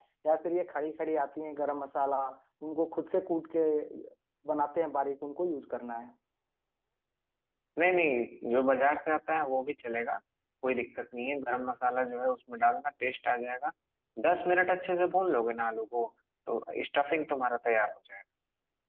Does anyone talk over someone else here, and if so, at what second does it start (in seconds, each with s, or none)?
none